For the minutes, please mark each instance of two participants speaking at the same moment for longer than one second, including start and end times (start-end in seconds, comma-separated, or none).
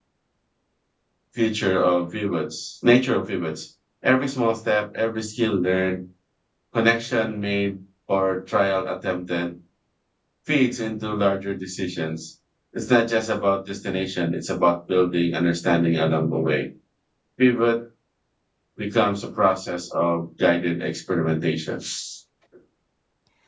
none